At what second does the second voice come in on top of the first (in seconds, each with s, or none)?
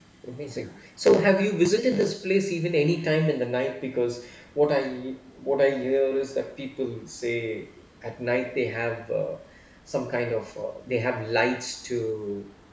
none